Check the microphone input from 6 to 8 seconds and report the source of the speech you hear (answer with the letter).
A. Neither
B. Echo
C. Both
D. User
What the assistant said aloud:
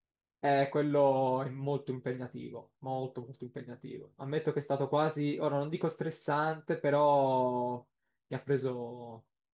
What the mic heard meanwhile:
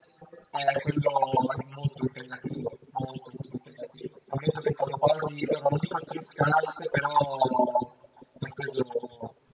B